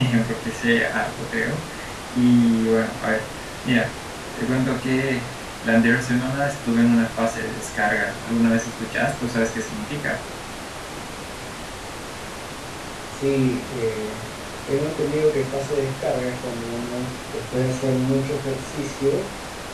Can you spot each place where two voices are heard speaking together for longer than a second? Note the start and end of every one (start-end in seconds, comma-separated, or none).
none